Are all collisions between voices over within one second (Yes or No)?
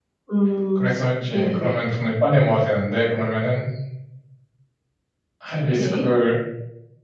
Yes